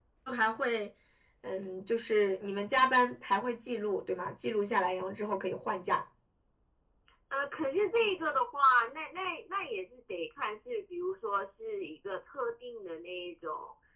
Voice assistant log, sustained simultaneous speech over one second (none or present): none